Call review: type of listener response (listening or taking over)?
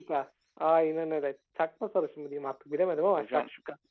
taking over